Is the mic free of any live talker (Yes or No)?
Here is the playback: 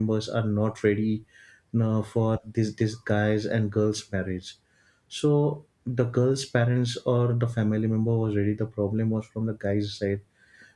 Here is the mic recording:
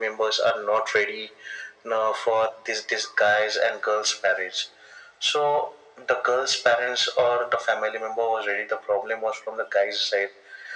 Yes